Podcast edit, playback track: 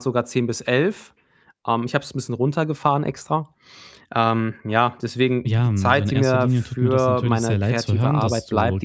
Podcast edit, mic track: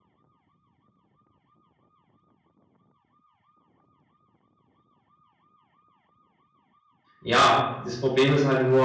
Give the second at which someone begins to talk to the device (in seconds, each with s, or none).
7.2 s